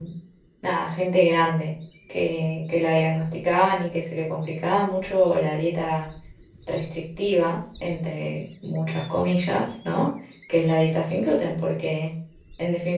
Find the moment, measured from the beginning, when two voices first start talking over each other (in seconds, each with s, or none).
none